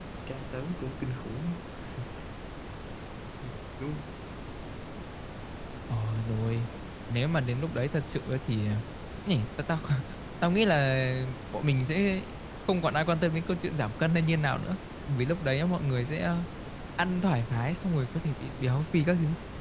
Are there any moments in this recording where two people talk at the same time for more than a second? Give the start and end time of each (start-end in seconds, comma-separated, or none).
none